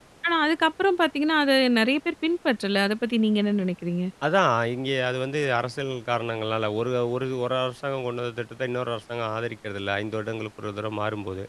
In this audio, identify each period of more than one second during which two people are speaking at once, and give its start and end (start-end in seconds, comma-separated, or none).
none